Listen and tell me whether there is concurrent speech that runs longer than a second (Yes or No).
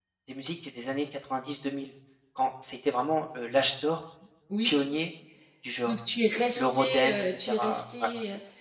Yes